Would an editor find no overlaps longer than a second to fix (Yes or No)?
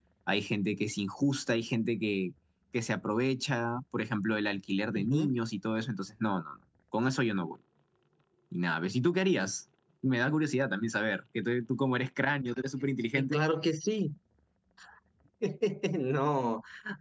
Yes